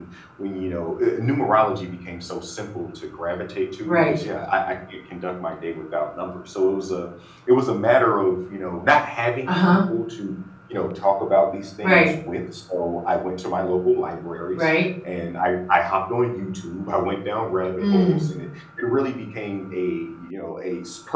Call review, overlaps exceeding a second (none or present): none